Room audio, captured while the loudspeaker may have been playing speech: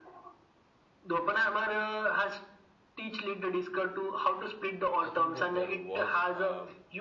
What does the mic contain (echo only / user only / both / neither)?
both